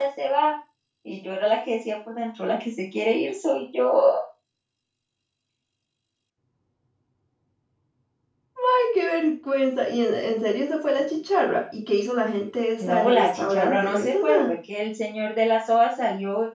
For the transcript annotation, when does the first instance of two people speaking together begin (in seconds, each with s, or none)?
12.8 s